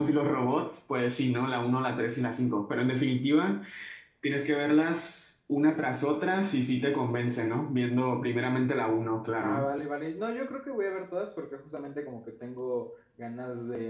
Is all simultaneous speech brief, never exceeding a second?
Yes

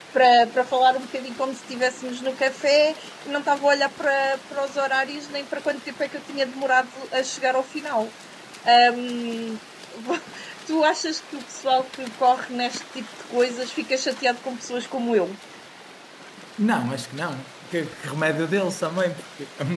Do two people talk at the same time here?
No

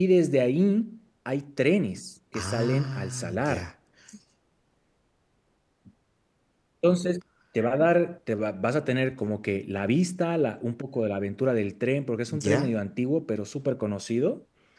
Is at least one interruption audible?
Yes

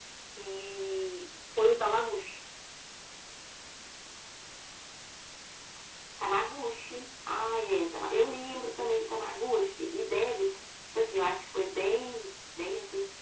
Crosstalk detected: No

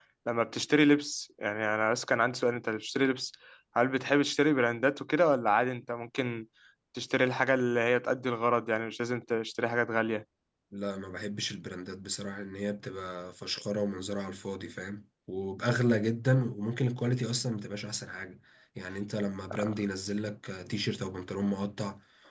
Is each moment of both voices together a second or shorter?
Yes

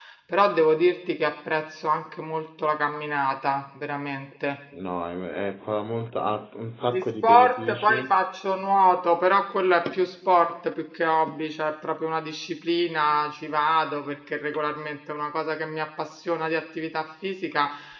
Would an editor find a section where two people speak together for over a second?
Yes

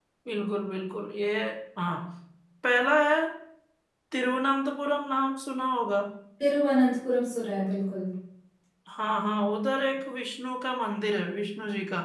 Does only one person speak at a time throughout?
Yes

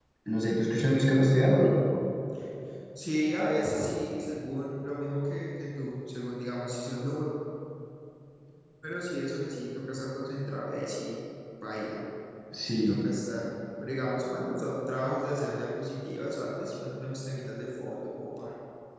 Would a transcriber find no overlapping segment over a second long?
Yes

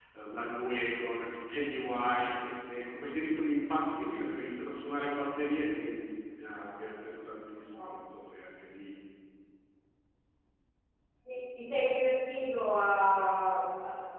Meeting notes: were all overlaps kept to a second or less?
Yes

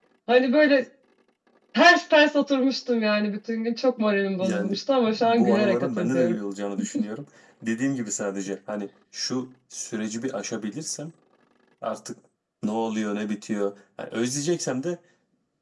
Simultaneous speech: Yes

